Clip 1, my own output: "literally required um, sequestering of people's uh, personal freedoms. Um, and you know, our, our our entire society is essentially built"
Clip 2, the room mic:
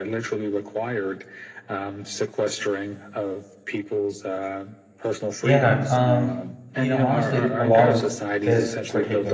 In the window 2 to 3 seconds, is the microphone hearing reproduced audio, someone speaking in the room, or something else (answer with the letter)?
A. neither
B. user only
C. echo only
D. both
C